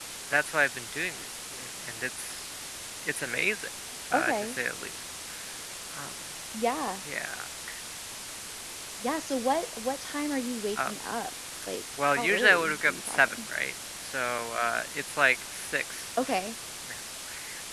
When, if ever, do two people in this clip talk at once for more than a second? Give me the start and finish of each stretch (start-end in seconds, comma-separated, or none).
12.1-13.4